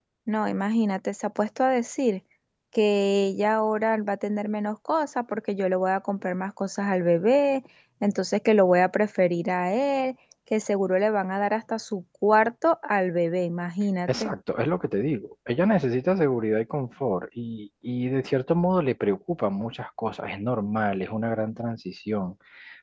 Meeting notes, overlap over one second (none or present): none